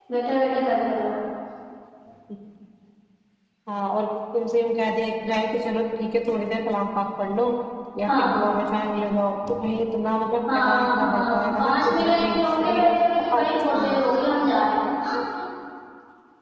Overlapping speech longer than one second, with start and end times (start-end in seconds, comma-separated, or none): 10.5-12.8